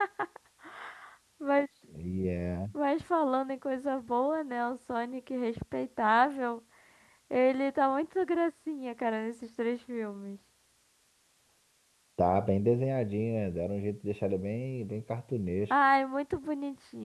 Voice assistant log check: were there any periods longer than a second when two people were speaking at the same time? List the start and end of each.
none

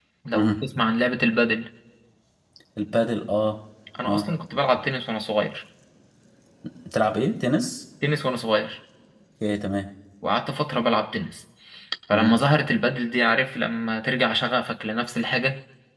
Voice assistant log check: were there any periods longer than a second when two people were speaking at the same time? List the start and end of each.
none

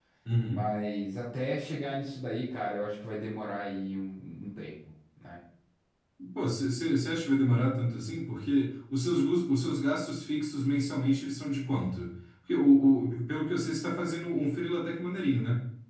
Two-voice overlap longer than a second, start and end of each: none

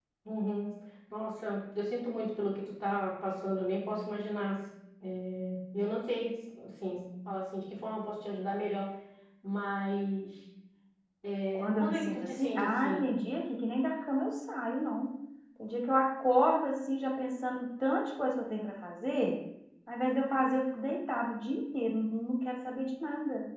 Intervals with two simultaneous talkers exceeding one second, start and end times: 11.5-13.1

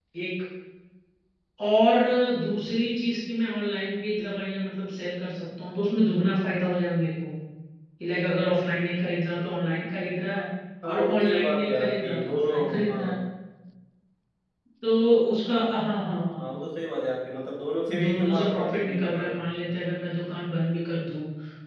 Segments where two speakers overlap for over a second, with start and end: 10.9-13.2, 18.0-19.4

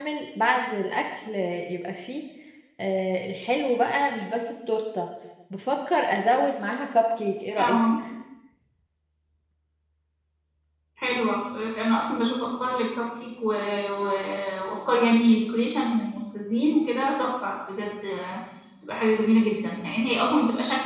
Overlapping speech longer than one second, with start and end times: none

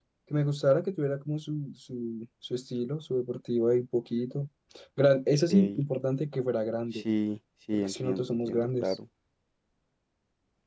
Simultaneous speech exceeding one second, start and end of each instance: 7.7-9.0

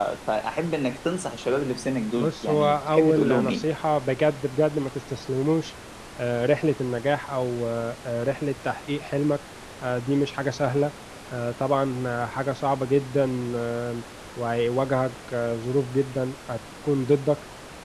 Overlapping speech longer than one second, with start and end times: 2.2-3.6

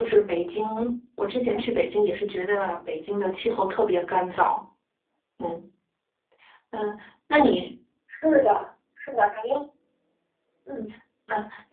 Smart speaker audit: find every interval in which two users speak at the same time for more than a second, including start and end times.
none

